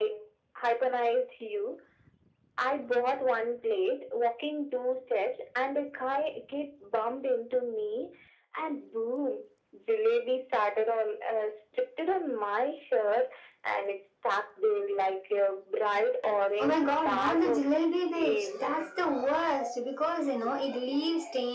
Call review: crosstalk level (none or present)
present